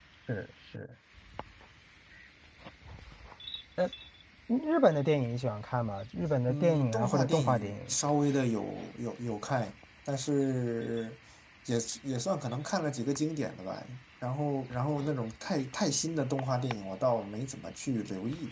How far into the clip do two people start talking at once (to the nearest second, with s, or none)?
6 s